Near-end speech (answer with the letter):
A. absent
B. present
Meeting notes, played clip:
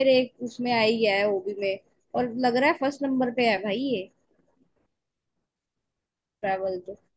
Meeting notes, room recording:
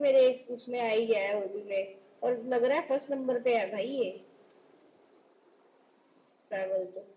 A